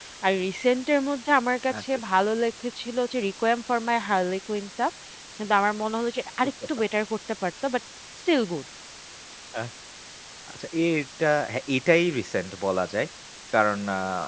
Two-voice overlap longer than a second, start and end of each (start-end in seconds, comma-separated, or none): none